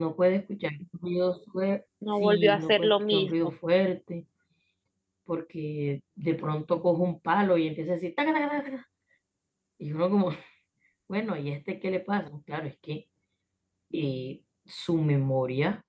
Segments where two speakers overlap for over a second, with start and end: 2.1-3.5

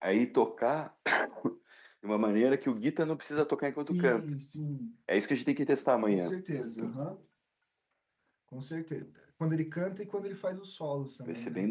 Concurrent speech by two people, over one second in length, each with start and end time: none

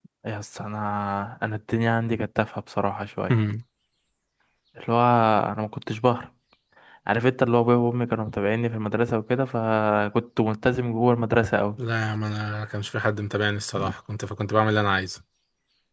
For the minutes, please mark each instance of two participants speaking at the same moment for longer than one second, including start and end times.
none

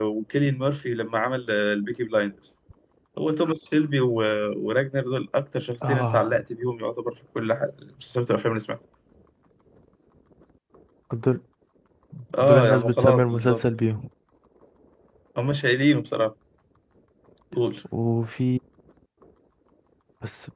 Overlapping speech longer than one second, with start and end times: 12.4-13.6

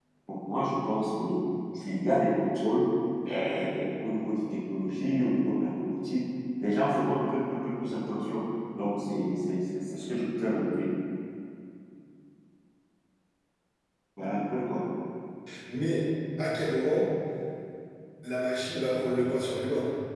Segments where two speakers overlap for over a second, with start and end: none

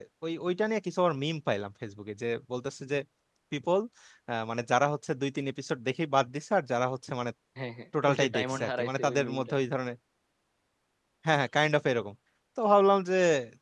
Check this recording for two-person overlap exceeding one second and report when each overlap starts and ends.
8.0-9.5

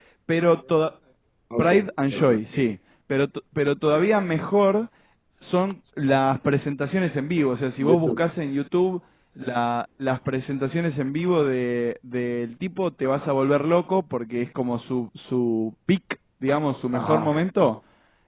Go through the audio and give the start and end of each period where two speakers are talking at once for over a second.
none

